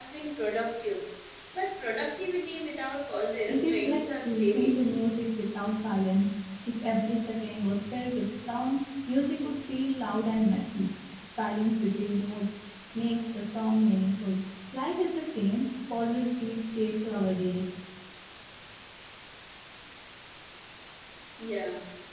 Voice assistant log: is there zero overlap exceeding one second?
No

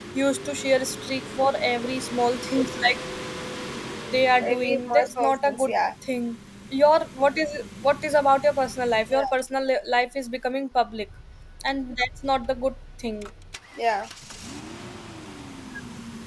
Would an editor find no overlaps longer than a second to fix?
No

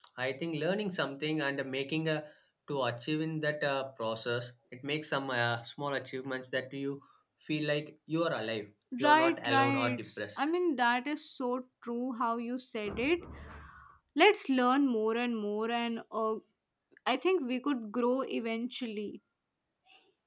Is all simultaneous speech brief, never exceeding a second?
No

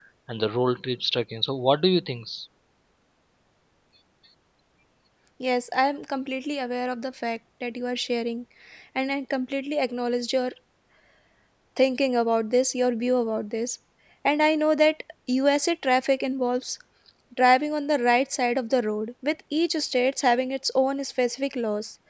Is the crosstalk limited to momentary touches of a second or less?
Yes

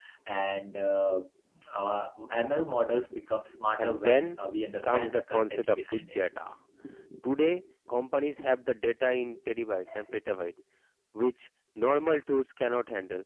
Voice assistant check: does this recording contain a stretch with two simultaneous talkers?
Yes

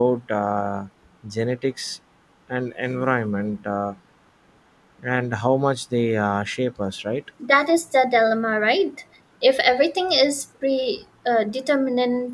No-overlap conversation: Yes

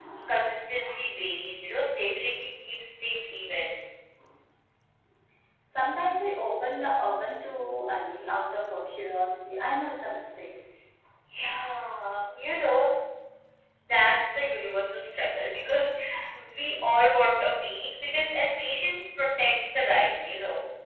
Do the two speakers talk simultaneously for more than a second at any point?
No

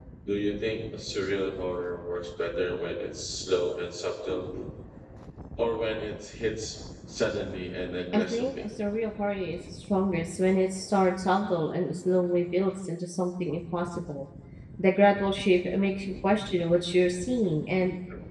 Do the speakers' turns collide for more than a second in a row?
No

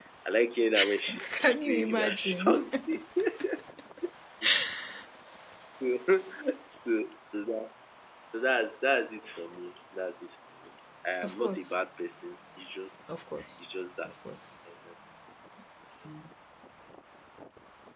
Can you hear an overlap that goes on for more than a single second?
Yes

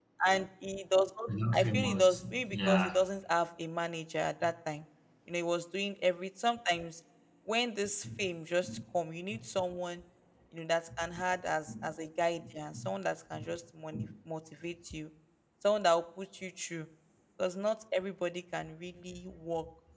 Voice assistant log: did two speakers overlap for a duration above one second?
Yes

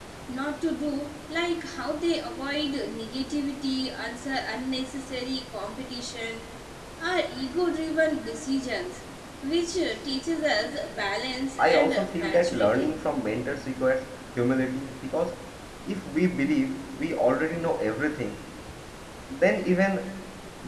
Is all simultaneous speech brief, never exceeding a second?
No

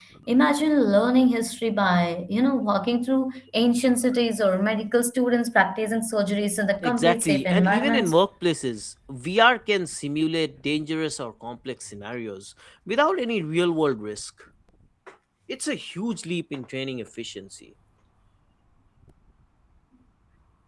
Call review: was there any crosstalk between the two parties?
Yes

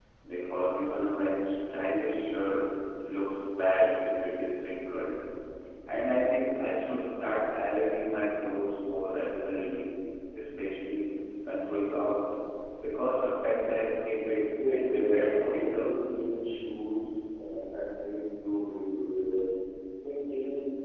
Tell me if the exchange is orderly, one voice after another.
No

